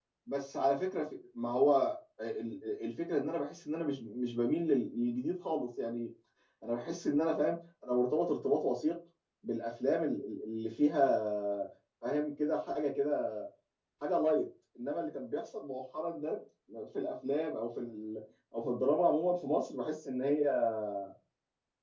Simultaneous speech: No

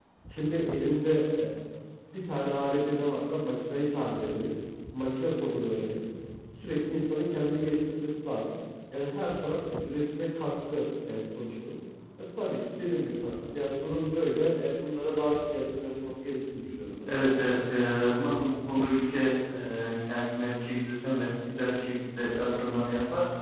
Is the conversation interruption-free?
Yes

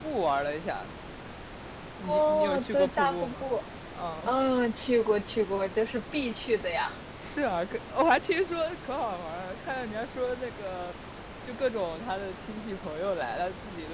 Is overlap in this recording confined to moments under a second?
No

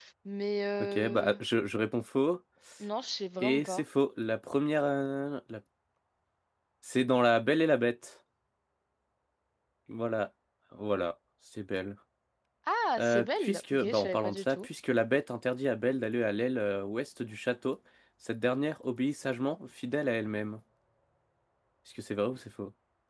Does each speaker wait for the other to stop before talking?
No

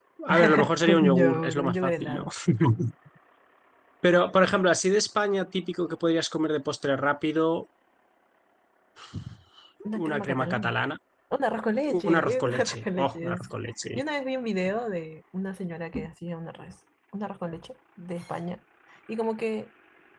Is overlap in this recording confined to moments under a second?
No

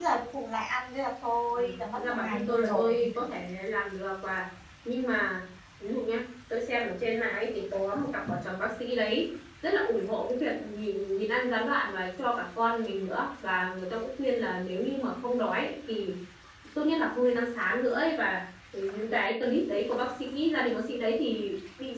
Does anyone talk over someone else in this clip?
Yes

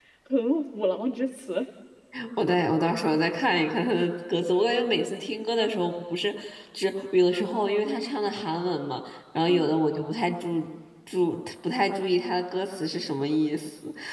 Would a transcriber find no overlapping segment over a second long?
Yes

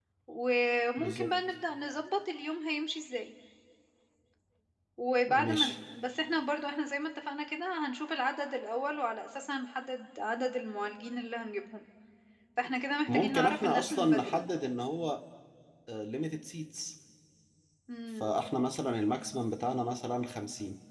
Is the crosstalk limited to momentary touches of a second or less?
No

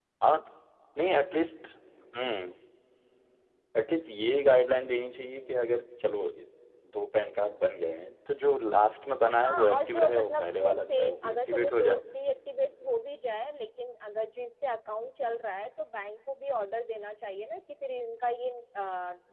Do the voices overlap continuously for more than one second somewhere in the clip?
Yes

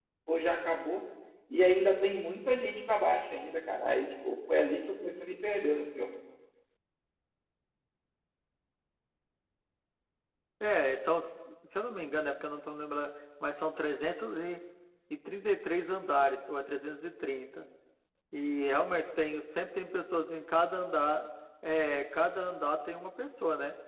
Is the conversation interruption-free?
Yes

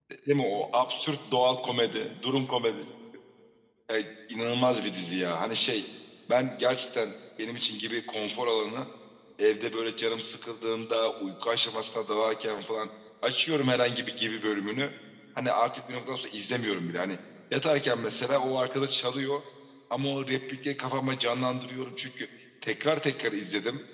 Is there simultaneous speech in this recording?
No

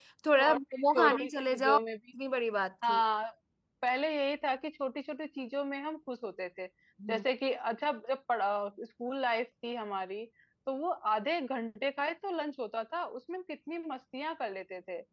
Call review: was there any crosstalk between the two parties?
Yes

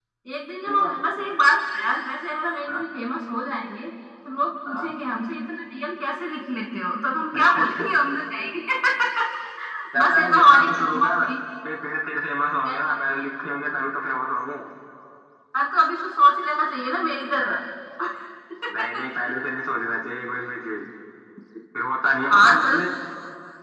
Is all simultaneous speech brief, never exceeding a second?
No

